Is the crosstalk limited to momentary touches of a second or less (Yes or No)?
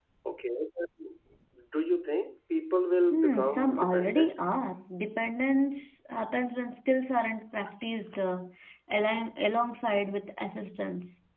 No